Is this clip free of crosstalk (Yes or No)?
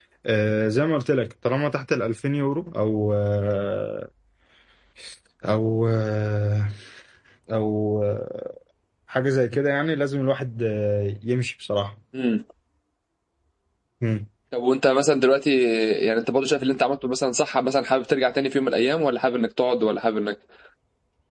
Yes